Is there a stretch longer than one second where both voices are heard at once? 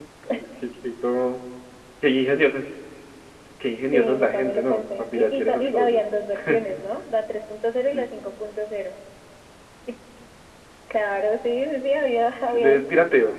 Yes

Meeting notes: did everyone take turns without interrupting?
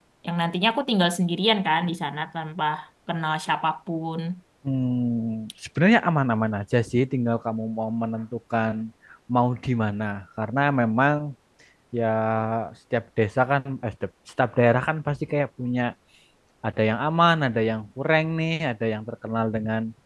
Yes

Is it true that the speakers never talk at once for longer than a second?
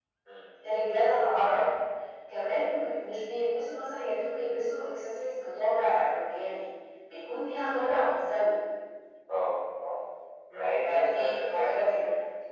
No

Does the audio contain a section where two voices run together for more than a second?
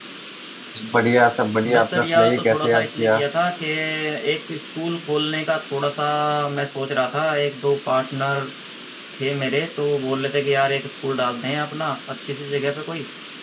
Yes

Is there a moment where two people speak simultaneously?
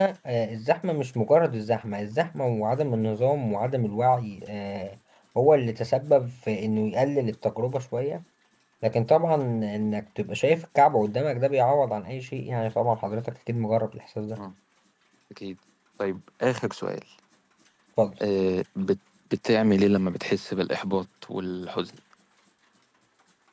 No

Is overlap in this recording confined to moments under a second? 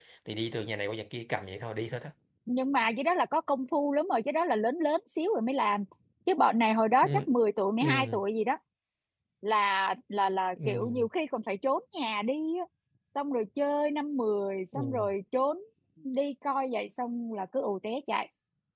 Yes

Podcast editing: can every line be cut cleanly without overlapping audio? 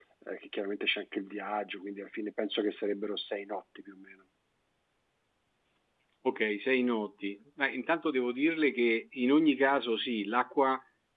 Yes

